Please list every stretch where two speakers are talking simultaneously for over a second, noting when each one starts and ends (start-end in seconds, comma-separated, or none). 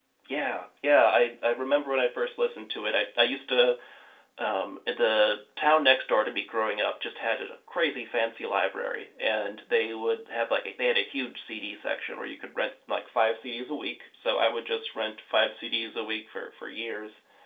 none